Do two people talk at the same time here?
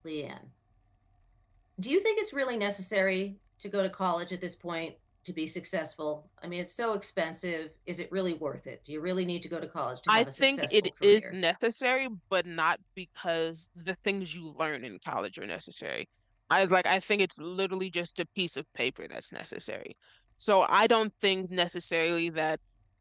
Yes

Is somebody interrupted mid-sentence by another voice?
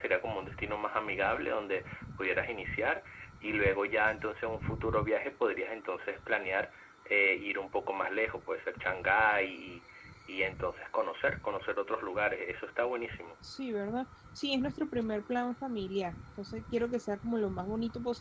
No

